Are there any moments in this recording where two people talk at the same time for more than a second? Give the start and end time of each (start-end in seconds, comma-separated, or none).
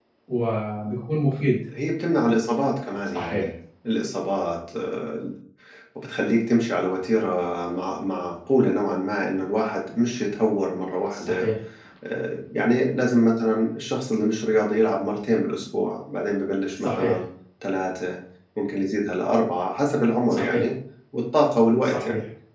none